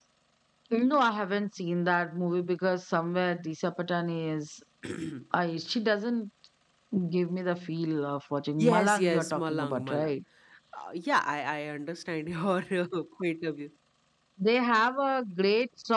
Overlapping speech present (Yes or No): Yes